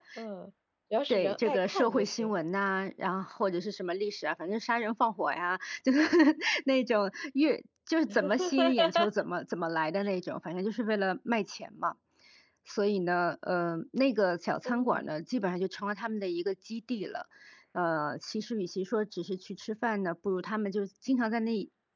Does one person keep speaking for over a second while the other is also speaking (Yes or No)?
Yes